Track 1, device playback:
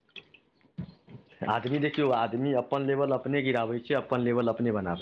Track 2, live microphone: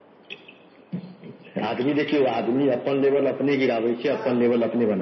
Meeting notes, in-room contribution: present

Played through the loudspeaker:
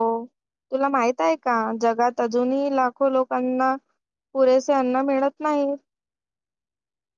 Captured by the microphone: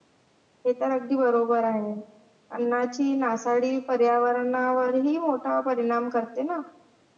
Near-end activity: present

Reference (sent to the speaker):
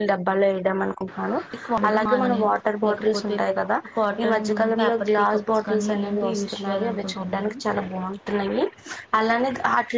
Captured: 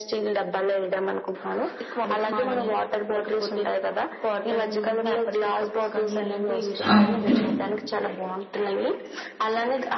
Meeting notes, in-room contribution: present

